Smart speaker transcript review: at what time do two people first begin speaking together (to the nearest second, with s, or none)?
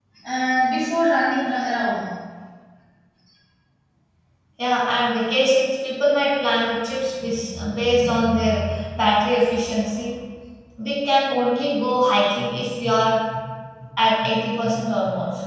none